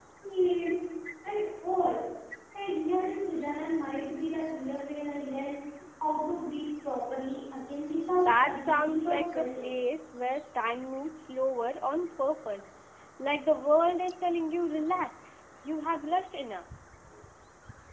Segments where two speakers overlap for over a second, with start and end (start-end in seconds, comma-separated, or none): 8.2-9.7